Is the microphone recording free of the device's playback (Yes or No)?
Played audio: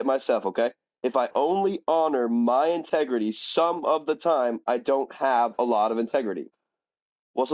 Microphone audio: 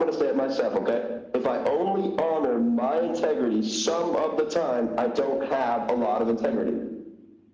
No